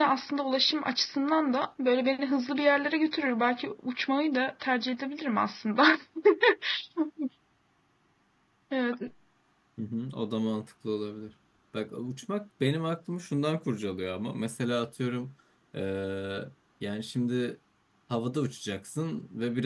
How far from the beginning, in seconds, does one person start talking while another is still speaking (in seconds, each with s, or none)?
none